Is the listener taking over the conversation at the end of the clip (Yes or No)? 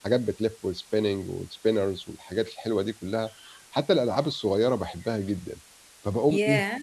No